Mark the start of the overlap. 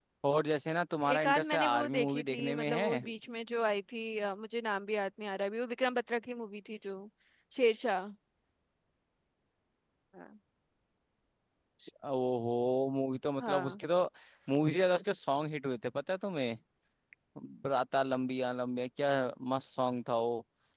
1.1 s

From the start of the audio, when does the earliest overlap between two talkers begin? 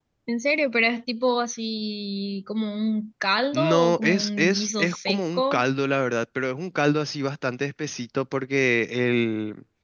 3.5 s

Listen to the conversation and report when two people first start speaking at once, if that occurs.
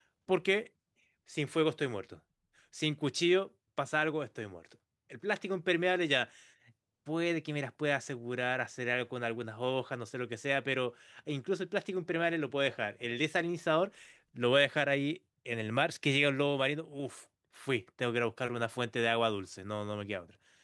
none

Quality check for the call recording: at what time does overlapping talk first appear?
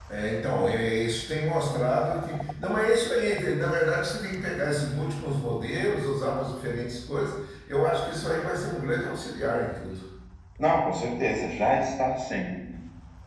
none

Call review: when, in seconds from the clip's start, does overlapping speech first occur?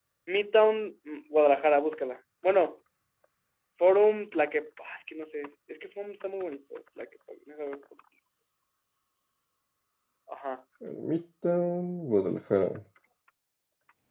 none

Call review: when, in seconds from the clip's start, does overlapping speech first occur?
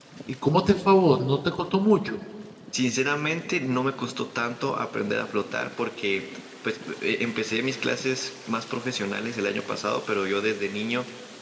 none

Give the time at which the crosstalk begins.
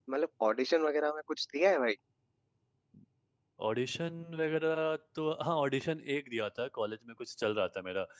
none

